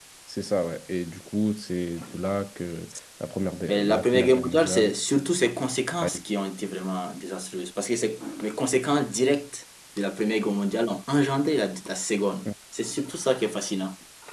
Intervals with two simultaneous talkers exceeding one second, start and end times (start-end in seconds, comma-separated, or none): 3.6-4.9